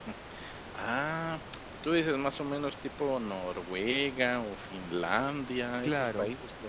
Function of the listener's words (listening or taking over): taking over